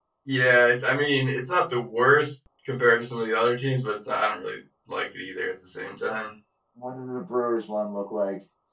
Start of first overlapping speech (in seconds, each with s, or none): none